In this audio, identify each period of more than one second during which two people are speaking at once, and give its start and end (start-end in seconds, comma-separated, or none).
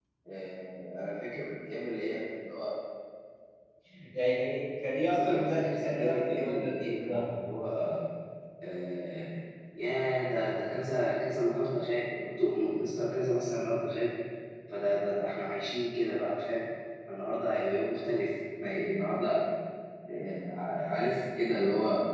5.2-7.2